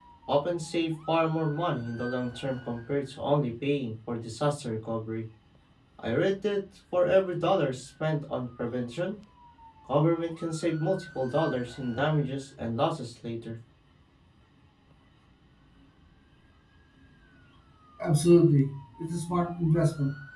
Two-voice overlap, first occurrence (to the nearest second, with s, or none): none